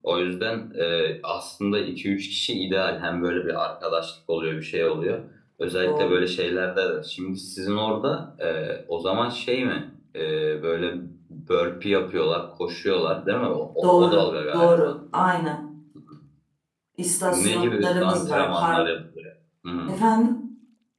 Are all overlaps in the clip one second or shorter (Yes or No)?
No